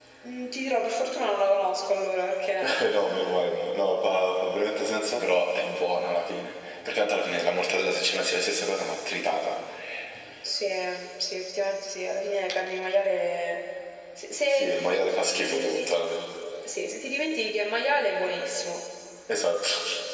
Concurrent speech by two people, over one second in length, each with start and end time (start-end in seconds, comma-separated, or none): 14.5-16.0